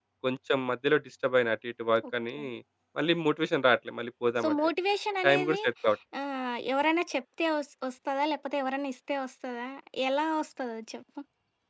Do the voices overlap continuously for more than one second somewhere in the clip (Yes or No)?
No